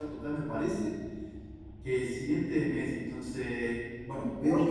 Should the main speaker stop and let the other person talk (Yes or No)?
No